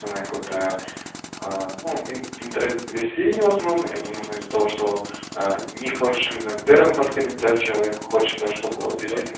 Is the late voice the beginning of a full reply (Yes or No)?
No